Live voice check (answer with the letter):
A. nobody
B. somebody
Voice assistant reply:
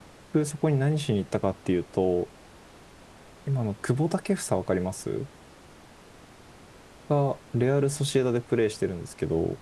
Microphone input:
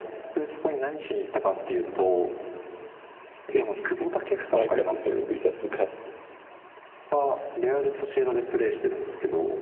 B